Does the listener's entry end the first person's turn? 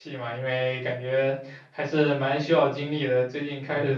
No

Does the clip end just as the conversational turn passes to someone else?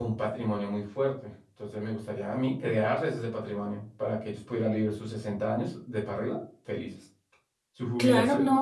Yes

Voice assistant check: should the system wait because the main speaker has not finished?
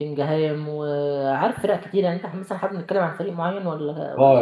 No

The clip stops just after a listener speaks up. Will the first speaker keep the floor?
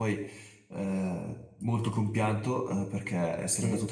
Yes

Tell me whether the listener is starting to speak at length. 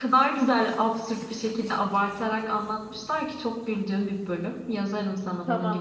Yes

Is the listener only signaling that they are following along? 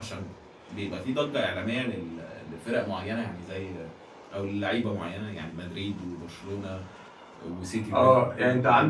No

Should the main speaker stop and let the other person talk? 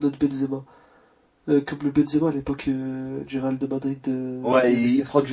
Yes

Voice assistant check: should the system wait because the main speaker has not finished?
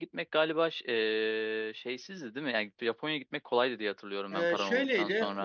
No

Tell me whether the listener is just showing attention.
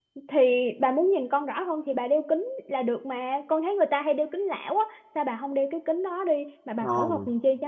No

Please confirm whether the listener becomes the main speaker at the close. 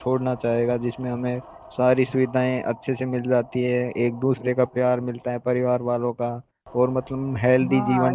Yes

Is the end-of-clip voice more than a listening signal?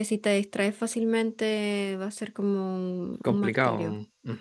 Yes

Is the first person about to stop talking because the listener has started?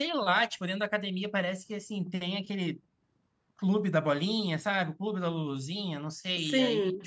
No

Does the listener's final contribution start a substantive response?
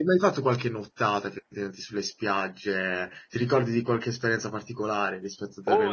Yes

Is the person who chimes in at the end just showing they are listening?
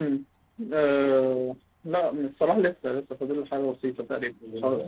Yes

